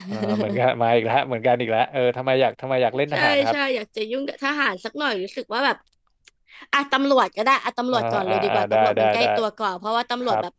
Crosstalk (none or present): present